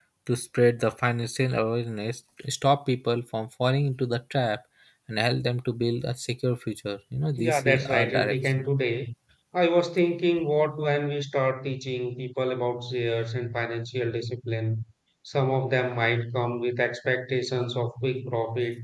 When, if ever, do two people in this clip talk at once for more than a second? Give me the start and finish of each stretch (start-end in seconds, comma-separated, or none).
7.4-8.7